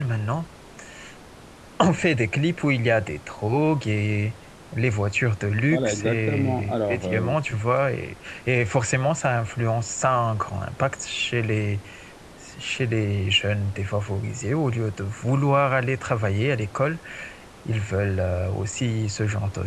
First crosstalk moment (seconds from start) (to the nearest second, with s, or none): 6 s